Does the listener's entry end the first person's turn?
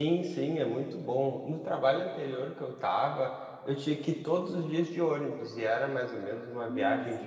No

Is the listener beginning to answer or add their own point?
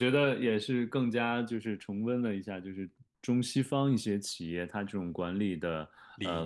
No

